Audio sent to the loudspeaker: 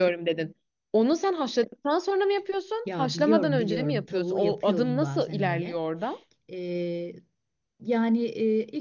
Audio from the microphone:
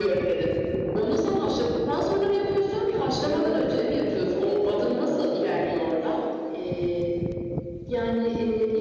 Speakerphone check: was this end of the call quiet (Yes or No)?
Yes